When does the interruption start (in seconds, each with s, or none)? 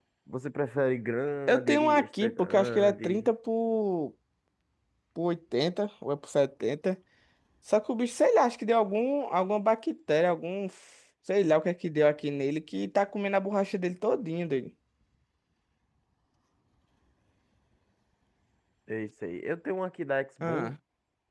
1.5 s